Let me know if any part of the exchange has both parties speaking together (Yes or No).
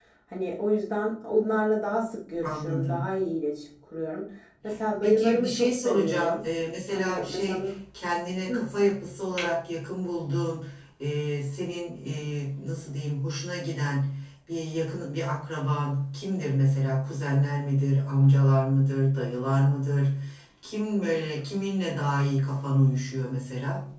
Yes